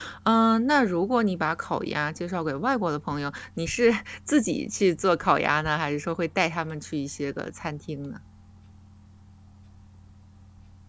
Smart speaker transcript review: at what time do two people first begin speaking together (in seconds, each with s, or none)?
none